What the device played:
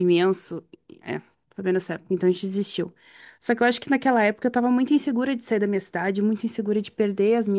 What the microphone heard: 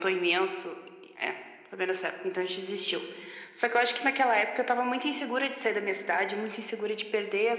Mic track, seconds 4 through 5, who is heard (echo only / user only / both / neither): echo only